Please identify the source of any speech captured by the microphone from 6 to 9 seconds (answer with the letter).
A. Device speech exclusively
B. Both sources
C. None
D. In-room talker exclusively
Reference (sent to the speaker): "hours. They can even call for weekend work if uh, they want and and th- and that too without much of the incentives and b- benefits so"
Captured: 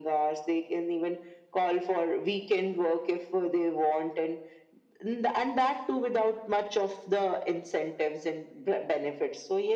A